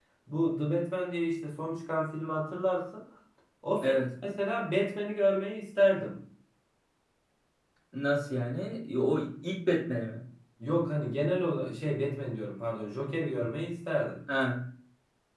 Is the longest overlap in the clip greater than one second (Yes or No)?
No